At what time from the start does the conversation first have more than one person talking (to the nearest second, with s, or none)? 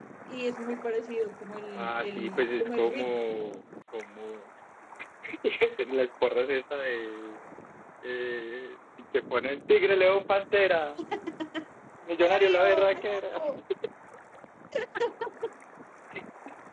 2 s